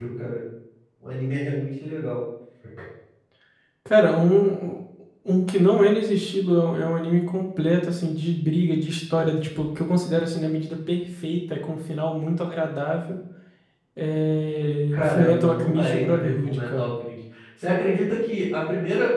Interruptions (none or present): present